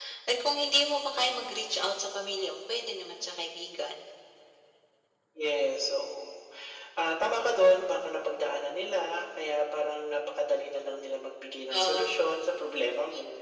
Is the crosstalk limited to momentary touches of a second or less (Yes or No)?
Yes